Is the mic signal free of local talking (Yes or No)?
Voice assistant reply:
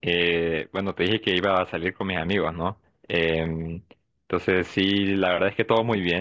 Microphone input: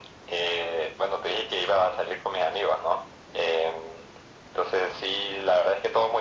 Yes